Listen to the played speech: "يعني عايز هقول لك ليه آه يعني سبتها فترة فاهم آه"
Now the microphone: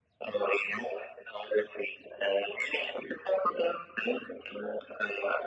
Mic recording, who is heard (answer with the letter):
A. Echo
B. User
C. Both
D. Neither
A